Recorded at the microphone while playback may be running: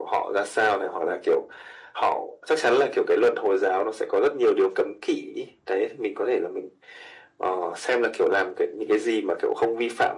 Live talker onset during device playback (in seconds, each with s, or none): none